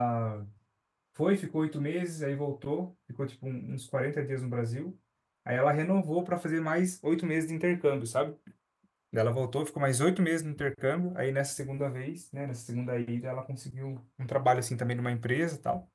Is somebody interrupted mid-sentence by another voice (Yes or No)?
No